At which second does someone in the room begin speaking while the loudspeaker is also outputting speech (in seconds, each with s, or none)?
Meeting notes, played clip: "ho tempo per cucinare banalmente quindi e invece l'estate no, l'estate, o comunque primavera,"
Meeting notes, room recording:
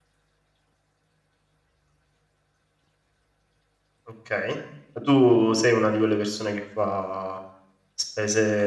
4.1 s